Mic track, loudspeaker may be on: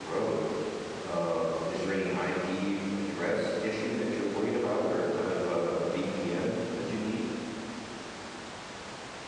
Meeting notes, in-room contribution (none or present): present